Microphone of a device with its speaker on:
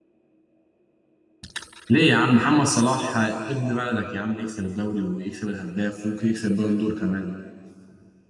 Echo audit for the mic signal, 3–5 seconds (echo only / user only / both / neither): user only